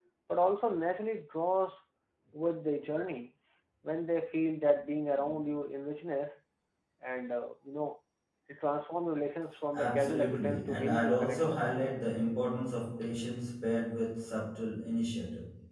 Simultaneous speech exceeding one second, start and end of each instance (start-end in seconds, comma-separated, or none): 9.8-11.6